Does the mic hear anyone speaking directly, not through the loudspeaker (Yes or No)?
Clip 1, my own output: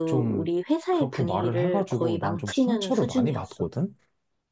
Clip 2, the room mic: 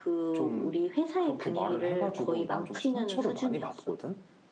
No